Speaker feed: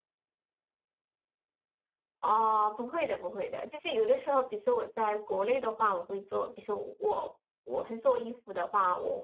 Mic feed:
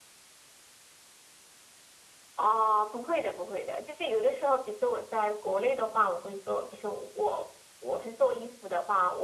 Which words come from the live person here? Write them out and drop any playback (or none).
none